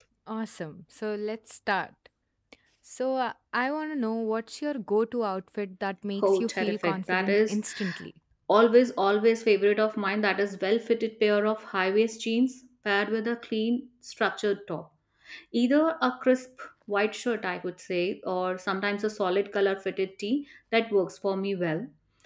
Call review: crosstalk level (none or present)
present